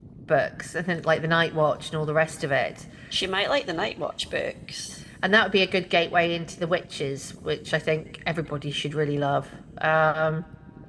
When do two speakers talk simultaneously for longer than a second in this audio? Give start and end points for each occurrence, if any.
none

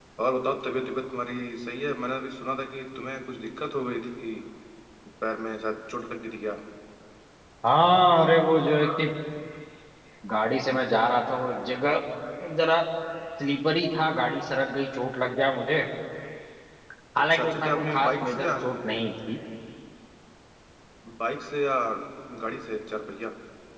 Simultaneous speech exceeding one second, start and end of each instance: 17.3-18.6

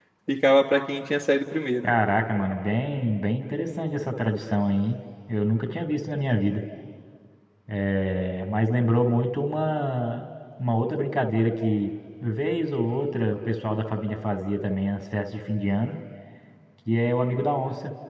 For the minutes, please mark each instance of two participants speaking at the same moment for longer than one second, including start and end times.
none

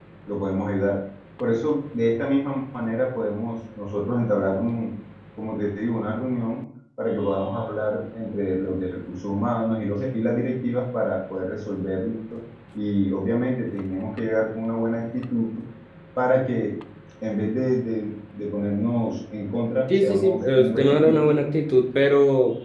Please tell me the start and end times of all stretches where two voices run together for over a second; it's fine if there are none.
19.9-21.3

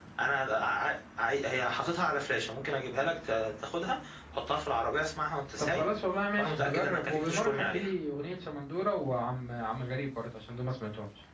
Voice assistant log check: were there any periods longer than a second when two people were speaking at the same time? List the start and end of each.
6.4-7.9

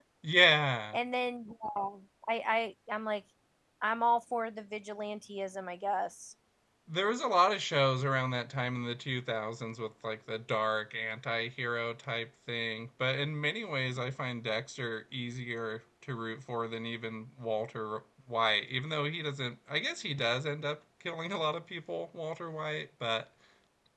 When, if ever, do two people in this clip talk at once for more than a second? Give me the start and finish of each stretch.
none

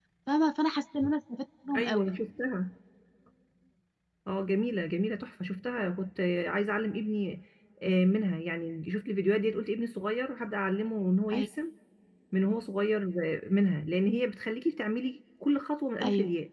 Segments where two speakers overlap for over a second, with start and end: none

